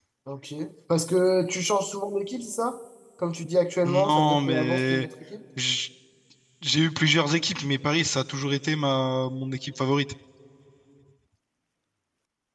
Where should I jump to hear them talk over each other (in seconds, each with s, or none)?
3.8 s